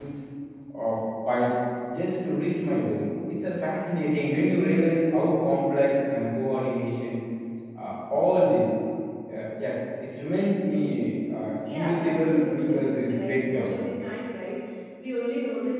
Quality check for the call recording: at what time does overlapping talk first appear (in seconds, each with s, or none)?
11.6 s